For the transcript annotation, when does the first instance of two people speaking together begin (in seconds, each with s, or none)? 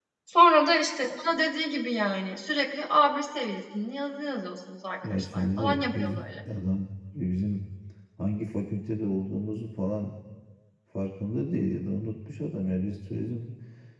5.0 s